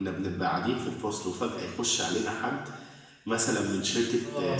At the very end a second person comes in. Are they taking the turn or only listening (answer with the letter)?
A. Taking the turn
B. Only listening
B